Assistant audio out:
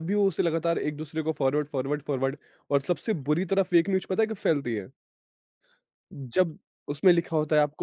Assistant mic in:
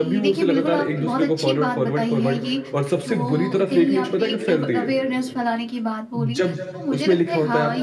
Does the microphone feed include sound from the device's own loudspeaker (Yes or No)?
Yes